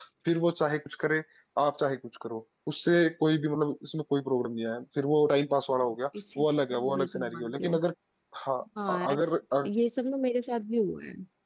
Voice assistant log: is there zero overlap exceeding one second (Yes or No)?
No